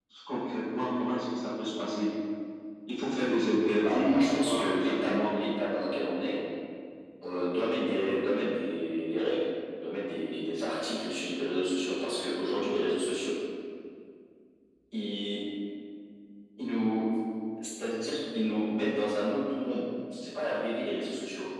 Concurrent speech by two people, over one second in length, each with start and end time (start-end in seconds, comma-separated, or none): 3.8-5.3